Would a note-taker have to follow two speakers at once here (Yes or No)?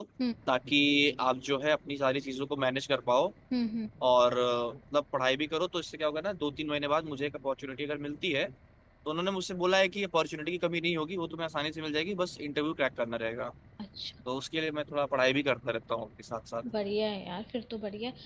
No